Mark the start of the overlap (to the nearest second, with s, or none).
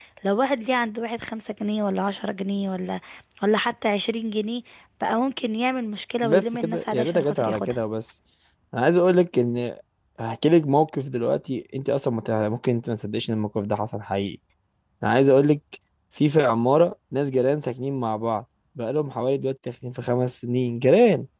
6 s